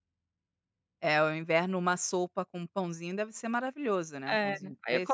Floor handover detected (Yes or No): Yes